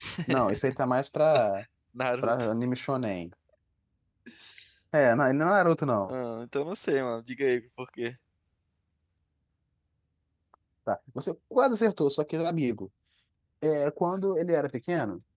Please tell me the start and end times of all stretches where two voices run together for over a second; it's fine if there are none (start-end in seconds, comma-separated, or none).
none